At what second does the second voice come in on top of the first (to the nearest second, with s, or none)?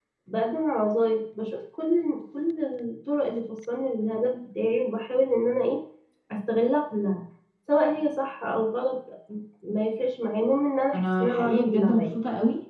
11 s